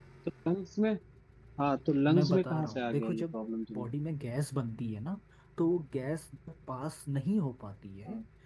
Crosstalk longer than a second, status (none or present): present